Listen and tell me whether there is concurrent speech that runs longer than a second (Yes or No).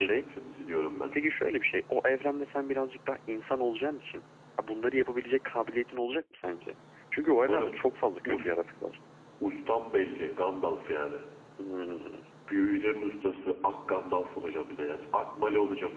No